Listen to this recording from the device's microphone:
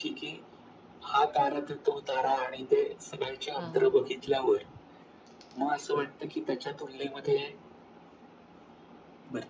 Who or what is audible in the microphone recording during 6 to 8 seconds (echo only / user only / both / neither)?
echo only